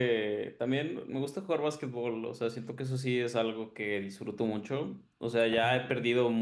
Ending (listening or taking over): listening